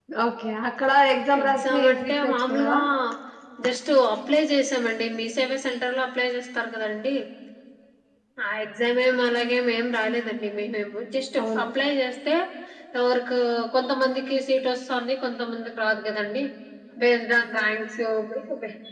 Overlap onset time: 1.4 s

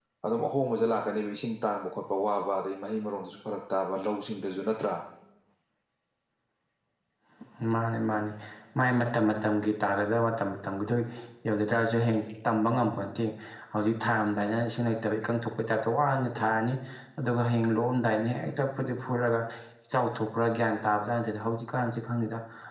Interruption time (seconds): none

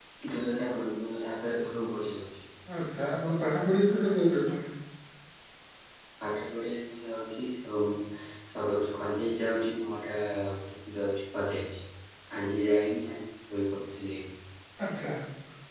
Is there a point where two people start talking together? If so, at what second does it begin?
none

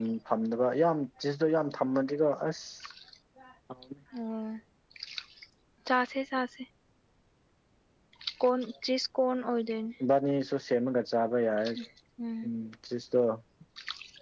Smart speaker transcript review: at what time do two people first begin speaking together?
none

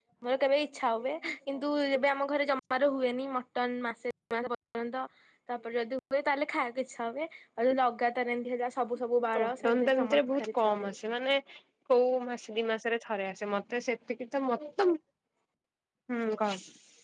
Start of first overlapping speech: 9.3 s

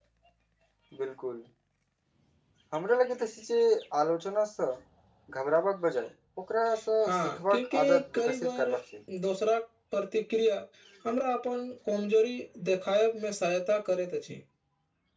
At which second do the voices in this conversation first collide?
7.0 s

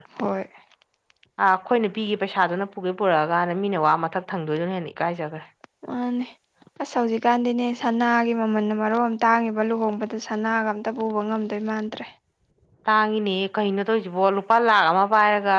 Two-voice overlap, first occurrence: none

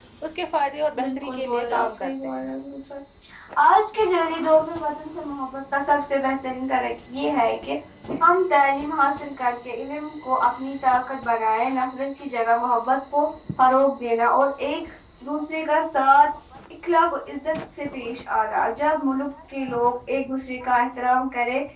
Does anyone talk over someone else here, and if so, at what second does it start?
1.0 s

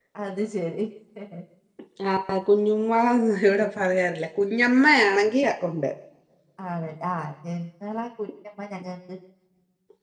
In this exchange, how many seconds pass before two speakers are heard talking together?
none

